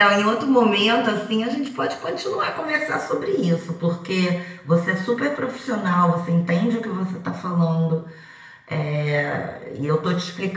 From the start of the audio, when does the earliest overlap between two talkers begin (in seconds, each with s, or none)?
none